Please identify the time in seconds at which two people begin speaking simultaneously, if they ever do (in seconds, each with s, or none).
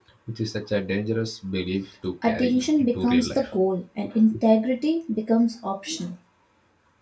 2.2 s